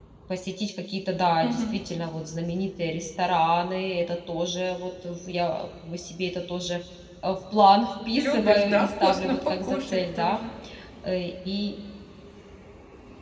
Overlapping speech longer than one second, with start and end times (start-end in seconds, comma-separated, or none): 8.1-10.4